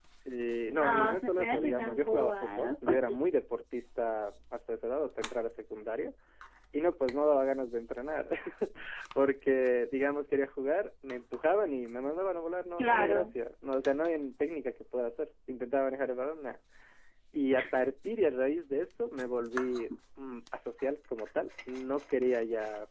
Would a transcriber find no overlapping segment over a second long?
No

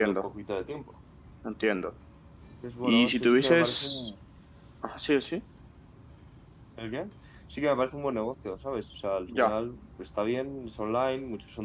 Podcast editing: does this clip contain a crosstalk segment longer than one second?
Yes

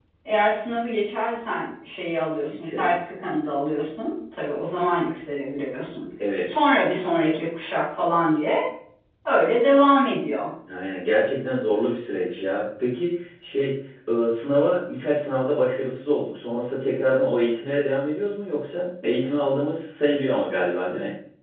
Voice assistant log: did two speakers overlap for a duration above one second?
No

